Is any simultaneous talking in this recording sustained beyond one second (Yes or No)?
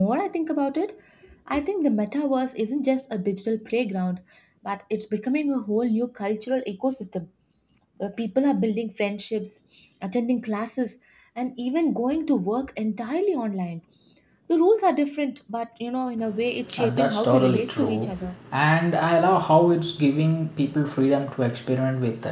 Yes